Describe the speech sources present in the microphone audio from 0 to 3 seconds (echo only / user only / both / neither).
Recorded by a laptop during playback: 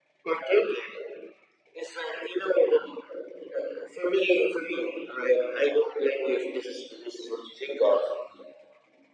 echo only